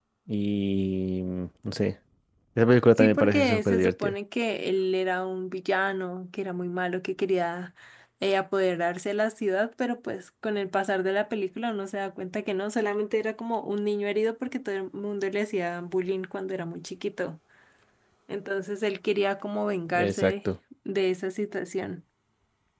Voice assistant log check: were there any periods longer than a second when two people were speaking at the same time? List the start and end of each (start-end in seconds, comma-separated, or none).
2.9-4.2